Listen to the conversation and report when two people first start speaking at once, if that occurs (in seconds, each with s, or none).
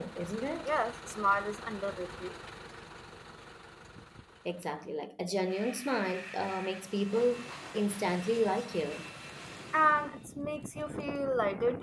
none